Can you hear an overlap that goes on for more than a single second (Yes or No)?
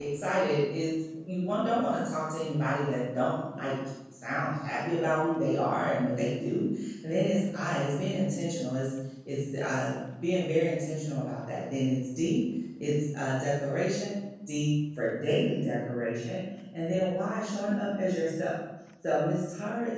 No